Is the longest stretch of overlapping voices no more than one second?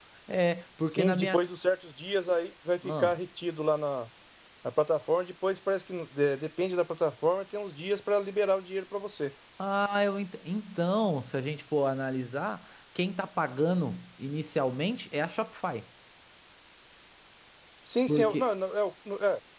Yes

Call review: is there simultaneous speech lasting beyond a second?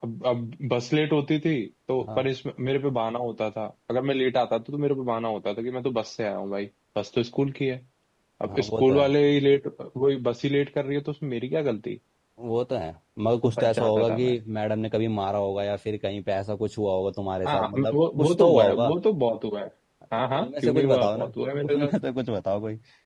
Yes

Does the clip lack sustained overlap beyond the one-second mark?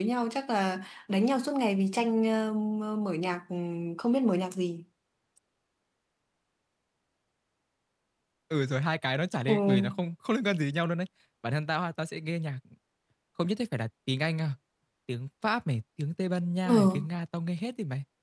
Yes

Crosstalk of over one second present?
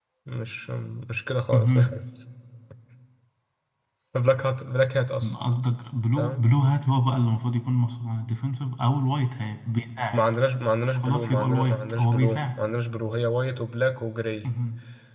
Yes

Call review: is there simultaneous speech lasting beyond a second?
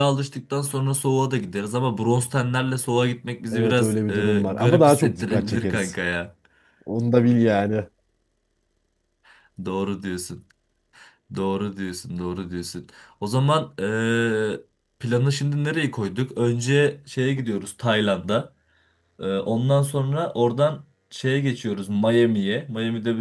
Yes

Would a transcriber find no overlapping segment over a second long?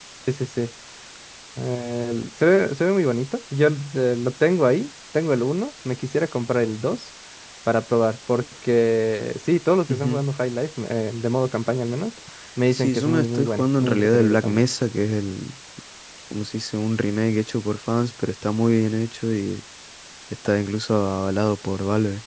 No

